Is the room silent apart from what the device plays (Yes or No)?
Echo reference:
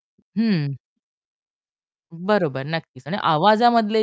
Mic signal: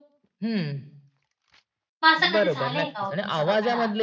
No